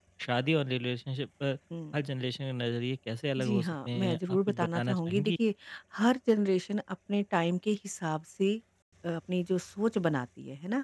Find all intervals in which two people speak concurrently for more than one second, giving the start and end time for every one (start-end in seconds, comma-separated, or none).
3.4-5.3